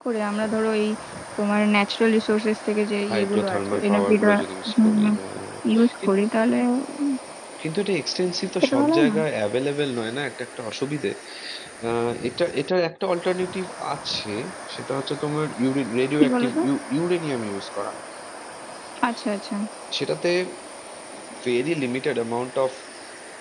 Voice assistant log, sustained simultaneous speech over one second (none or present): present